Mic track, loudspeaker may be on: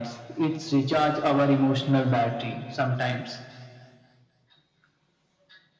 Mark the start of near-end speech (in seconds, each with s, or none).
none